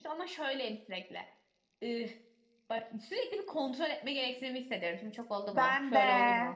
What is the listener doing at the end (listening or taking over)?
listening